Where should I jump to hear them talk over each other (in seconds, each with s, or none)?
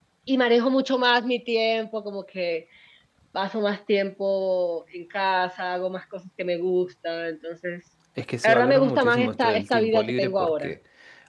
8.4 s